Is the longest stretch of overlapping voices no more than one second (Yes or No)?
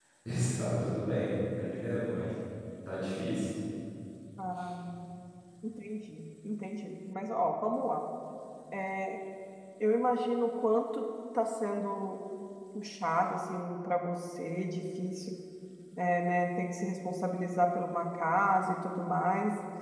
Yes